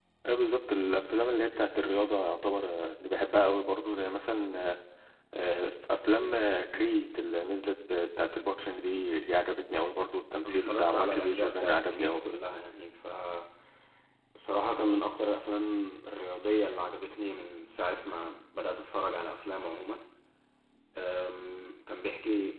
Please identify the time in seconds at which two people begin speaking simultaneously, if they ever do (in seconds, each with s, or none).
10.4 s